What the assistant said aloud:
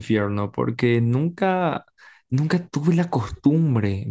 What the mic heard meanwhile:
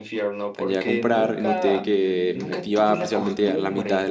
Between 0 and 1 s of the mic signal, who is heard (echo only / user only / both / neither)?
both